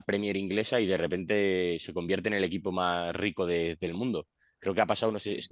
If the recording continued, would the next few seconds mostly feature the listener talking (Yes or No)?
No